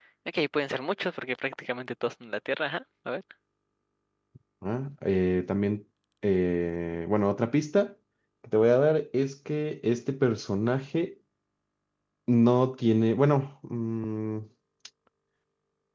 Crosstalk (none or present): none